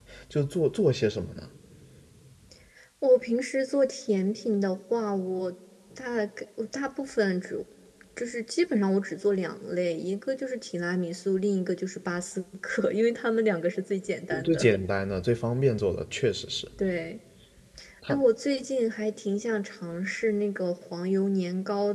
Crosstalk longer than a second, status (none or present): none